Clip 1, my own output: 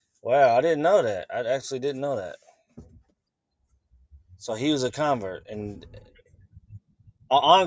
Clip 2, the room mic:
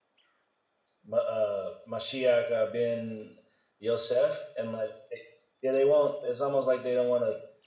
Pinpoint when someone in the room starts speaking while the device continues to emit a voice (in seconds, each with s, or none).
1.1 s